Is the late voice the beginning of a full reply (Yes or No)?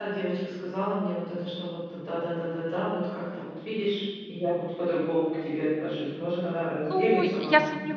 Yes